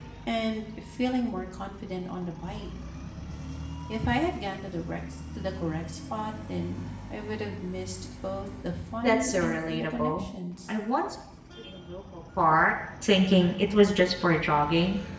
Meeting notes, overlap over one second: present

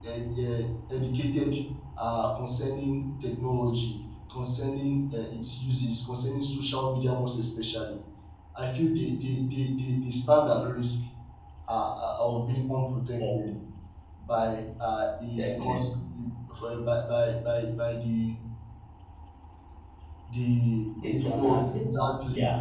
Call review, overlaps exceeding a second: present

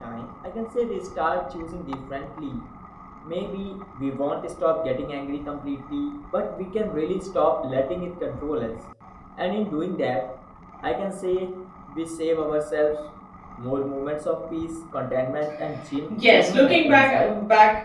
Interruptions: present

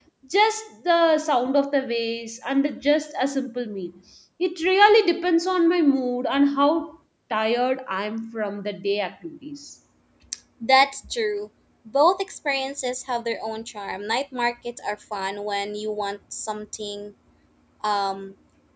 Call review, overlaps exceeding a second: none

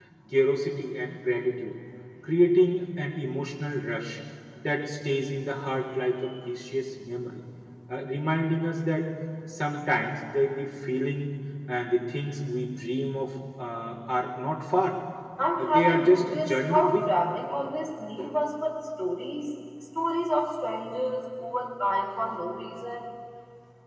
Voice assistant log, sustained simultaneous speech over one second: present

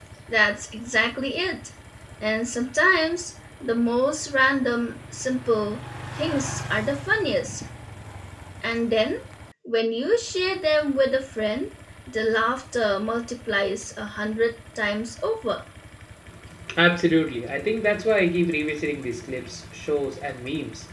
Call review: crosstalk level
none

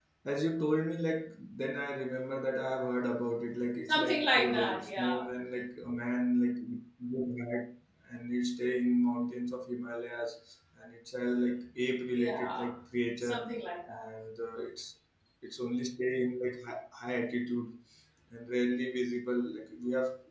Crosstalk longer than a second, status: present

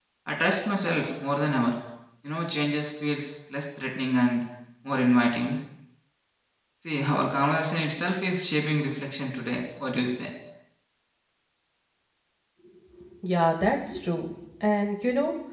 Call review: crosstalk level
none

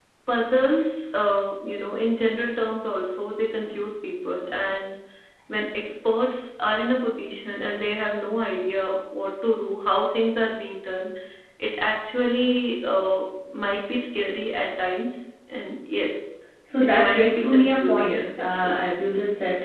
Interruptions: present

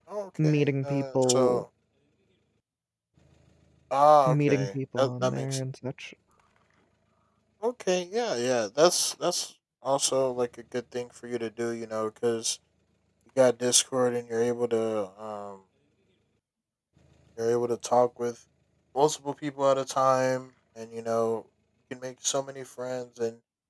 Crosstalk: present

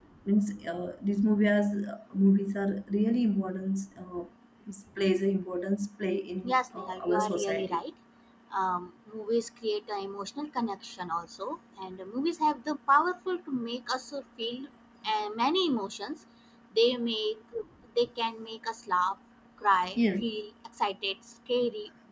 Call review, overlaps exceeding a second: present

